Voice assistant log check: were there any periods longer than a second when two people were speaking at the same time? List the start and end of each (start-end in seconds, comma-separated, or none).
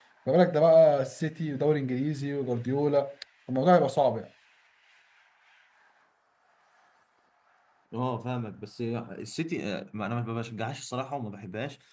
none